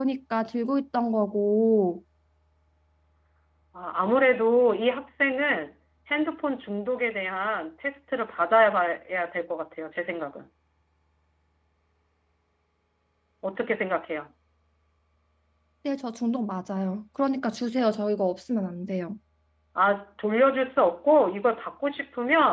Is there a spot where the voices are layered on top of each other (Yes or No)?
No